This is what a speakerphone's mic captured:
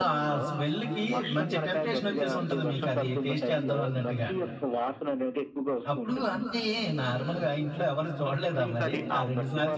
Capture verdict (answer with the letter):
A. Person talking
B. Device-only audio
A